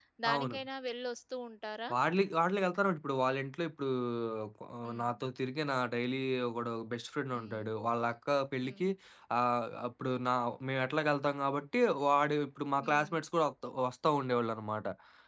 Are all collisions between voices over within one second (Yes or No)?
Yes